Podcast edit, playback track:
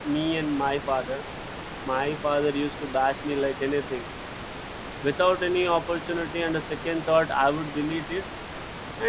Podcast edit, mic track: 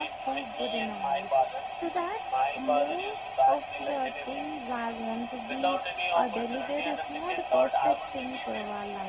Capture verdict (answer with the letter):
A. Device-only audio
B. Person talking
B